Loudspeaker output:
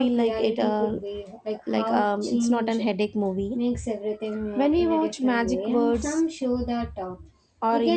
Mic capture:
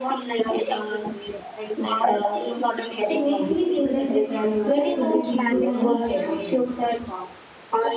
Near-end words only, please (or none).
It makes me feel like the characters could be people I meet every day.